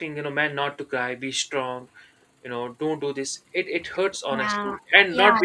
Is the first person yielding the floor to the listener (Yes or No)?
Yes